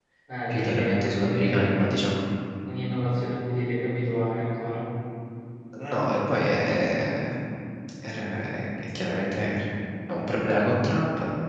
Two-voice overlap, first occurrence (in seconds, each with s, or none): 0.5 s